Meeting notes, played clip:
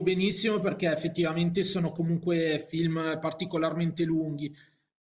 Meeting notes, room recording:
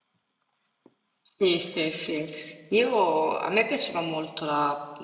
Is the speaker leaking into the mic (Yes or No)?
No